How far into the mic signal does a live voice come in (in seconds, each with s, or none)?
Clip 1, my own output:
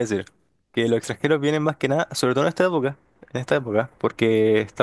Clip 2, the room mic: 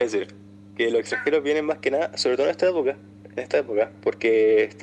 none